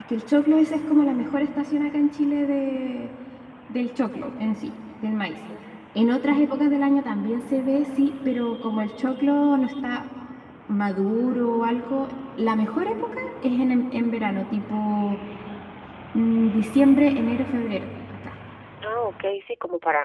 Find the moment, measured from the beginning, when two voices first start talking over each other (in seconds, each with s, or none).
none